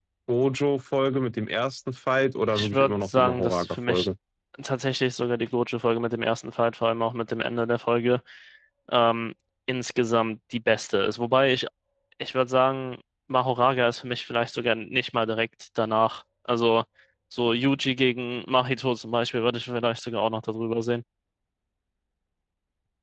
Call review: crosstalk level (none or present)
present